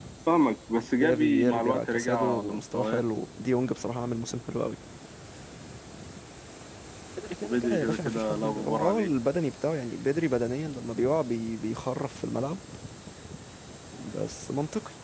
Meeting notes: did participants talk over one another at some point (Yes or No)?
Yes